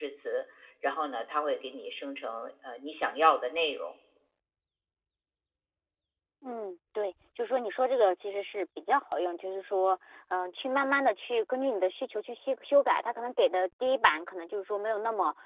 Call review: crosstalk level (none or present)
none